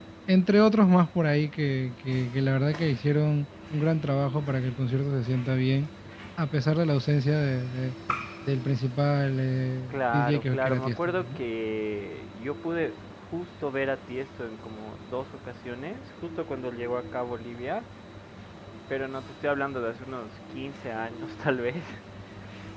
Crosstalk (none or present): present